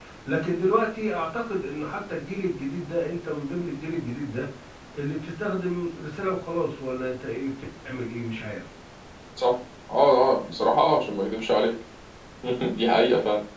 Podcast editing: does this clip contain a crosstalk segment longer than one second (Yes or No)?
No